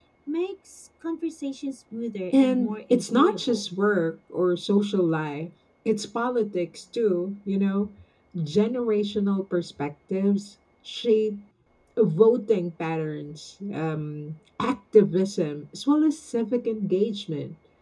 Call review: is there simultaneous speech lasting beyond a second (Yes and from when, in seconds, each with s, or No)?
Yes, from 2.3 s